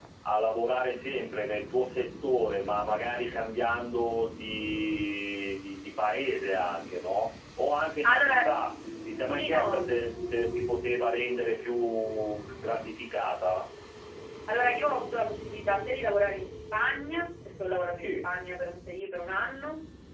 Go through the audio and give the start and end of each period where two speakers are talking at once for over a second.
none

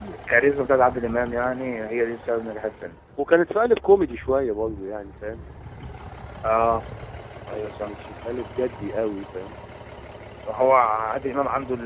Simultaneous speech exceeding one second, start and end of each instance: none

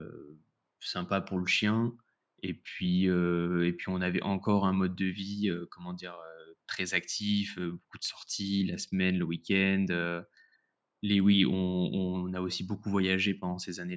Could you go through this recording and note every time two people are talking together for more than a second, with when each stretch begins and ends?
none

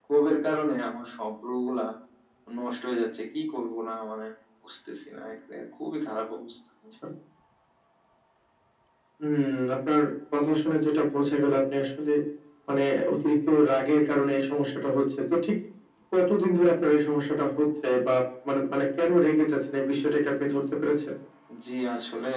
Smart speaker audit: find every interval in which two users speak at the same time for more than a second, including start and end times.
none

